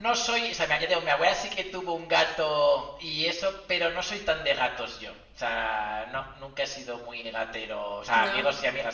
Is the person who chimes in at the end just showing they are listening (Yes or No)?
Yes